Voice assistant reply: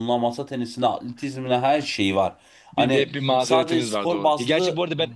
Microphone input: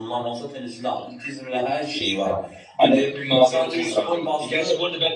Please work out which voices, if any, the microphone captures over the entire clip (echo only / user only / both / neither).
echo only